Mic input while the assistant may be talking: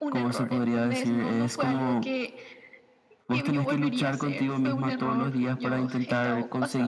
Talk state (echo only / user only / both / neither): echo only